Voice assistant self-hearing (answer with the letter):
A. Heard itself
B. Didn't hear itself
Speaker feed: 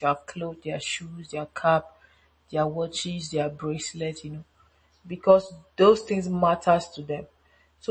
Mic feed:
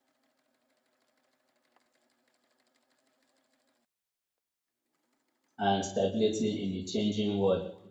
B